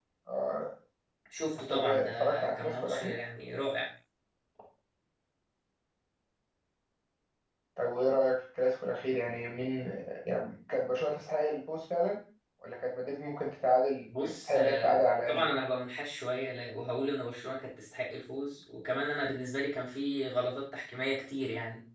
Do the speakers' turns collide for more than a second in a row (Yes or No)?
Yes